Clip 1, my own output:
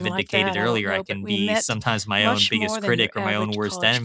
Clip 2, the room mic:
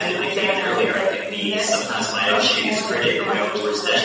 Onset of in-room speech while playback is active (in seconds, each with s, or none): none